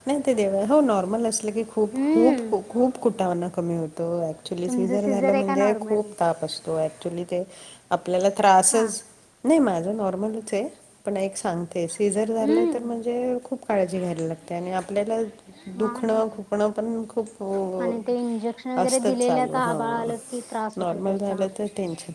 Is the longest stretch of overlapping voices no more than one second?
No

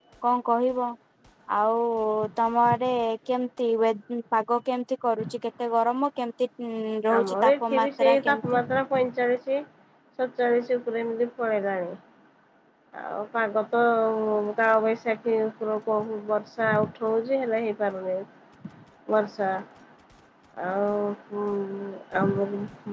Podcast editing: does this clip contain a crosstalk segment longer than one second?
Yes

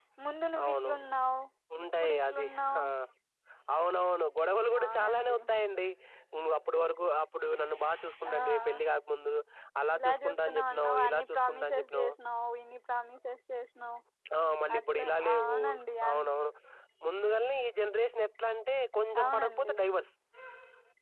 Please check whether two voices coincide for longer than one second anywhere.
Yes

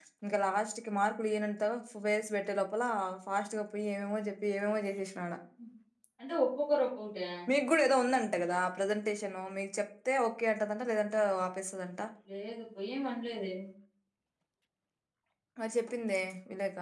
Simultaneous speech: No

